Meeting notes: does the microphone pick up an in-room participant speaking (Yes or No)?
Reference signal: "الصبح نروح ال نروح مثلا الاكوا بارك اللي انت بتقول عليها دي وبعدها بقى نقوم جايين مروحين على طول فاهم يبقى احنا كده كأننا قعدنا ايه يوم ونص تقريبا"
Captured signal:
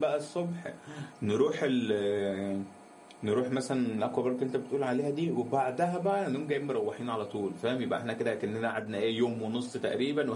No